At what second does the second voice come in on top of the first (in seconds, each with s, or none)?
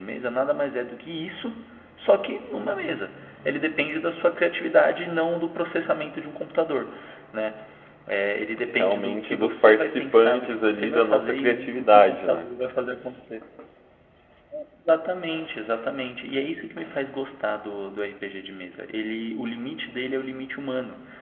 8.7 s